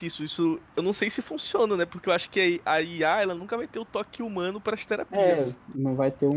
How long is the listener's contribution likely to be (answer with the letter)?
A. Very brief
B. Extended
B